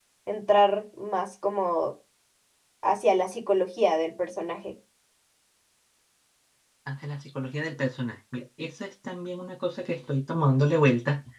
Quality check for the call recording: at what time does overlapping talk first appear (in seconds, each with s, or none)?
none